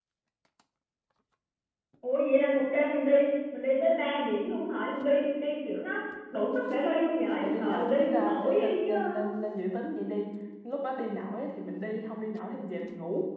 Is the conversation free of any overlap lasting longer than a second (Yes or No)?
No